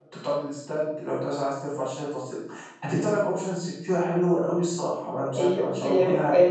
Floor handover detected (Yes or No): Yes